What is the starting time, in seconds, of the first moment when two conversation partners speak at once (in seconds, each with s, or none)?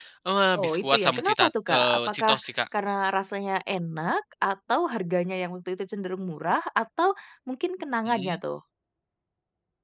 0.6 s